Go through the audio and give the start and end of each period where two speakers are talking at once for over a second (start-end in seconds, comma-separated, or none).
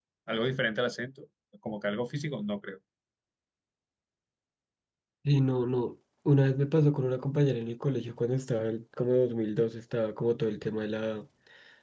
none